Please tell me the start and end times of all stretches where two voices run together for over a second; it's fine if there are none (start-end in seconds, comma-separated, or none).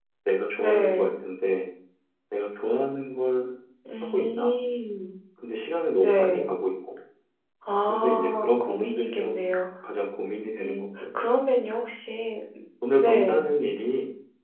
7.9-9.5